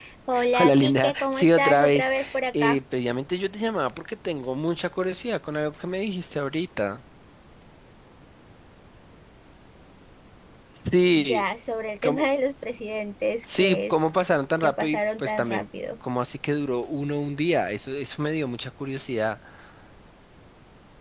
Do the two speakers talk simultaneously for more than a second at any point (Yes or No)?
Yes